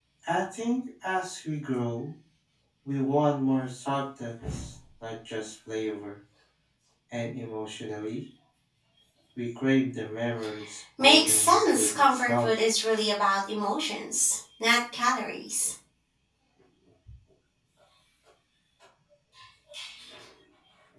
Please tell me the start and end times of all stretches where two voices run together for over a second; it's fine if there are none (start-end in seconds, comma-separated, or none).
11.0-12.5